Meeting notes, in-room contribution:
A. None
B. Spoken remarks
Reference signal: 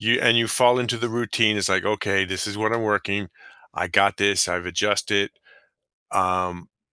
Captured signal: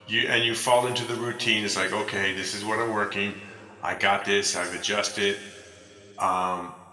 A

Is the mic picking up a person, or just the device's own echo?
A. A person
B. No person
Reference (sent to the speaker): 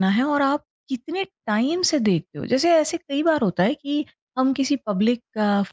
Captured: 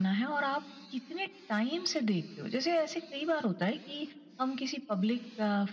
B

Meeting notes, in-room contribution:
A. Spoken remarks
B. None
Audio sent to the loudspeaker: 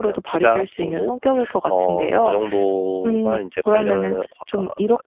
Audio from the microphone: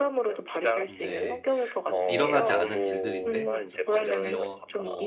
A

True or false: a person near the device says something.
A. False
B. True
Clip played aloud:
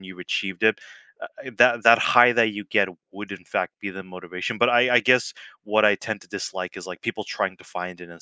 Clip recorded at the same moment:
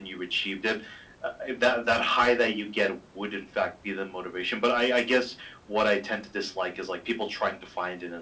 A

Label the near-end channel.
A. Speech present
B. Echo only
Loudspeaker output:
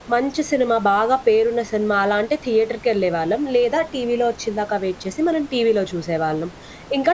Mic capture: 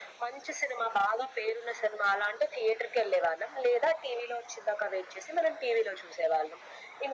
B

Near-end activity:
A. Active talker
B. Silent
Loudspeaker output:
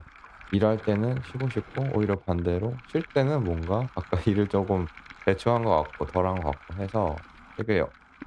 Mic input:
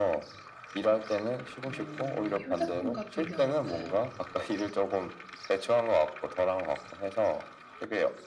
A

